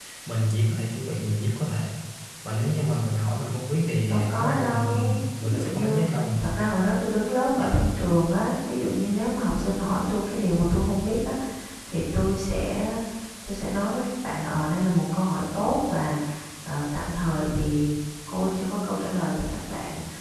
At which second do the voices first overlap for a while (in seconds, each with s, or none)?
4.1 s